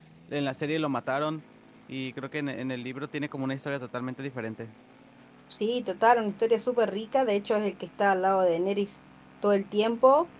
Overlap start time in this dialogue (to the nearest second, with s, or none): none